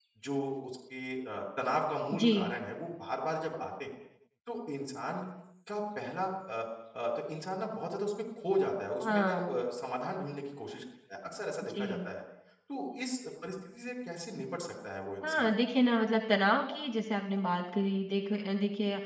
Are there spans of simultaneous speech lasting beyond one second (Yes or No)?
No